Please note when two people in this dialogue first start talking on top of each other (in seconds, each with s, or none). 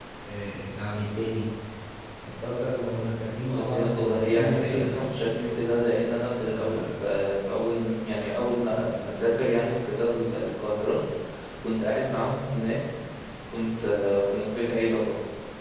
3.6 s